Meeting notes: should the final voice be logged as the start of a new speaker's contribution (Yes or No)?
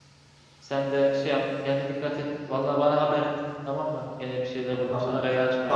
Yes